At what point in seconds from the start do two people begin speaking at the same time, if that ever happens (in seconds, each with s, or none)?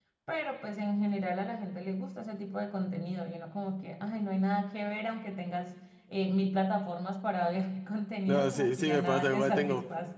8.3 s